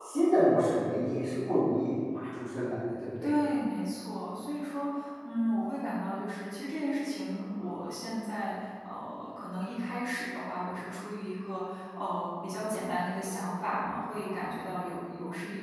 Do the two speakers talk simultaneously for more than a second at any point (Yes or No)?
No